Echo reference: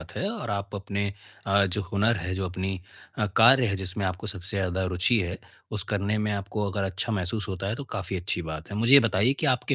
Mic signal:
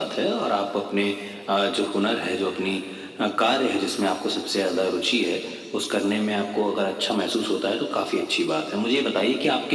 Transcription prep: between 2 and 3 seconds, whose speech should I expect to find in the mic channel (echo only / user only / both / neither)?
echo only